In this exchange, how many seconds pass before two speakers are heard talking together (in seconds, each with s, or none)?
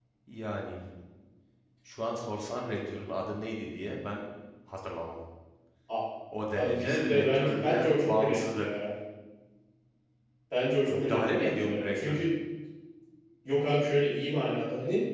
6.6 s